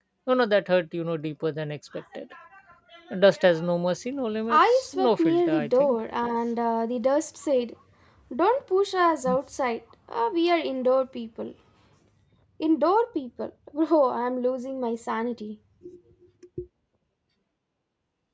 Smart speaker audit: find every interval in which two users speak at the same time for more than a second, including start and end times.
4.5-6.0

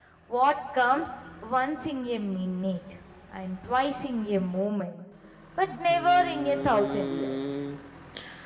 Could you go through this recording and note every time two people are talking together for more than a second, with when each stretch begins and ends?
5.9-7.4

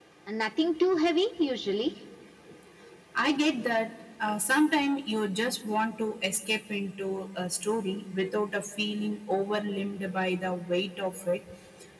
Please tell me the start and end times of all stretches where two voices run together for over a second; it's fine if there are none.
none

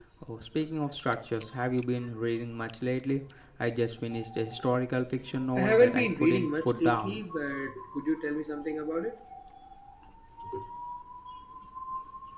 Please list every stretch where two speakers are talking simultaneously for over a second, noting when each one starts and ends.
5.5-7.2

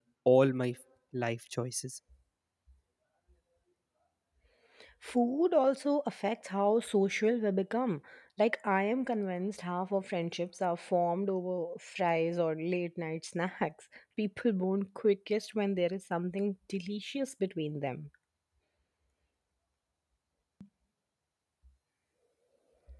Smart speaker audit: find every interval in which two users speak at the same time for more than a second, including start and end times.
none

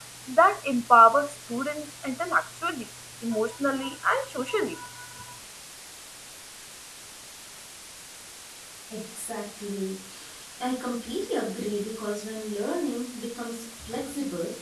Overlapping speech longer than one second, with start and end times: none

